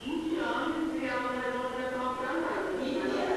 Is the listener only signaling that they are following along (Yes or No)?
No